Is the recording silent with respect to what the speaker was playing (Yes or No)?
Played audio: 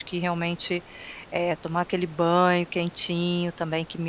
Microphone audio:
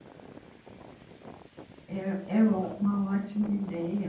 Yes